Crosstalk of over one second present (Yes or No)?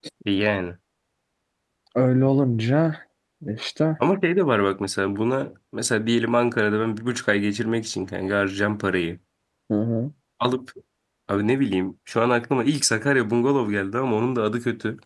No